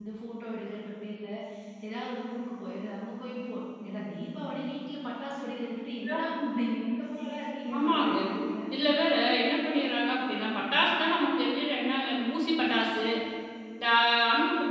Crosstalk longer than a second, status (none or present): none